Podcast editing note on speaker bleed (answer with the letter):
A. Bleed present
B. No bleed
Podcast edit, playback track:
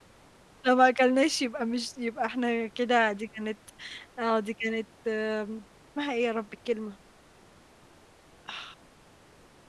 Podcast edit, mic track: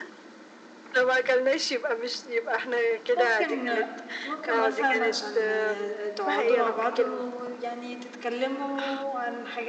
A